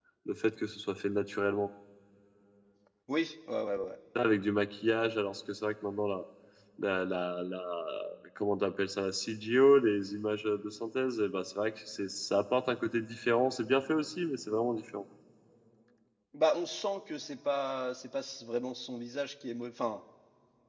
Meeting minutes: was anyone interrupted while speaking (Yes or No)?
No